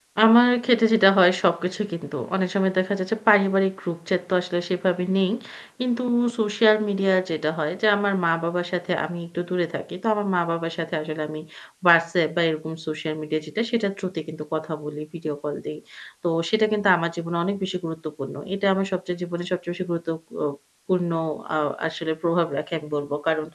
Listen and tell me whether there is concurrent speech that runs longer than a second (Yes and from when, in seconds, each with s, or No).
No